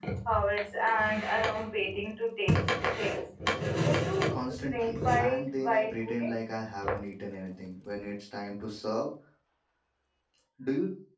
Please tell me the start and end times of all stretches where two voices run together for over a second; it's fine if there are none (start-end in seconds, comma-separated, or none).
4.5-6.3